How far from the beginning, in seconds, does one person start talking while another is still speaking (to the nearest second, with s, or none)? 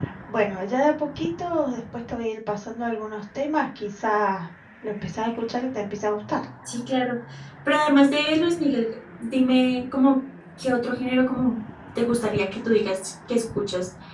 none